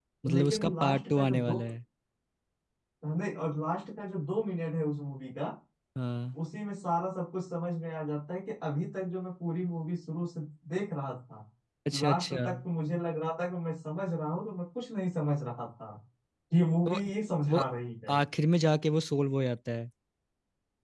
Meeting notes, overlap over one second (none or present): present